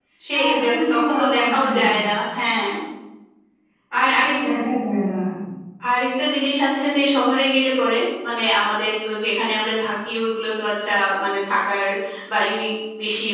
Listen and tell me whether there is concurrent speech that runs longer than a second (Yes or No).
Yes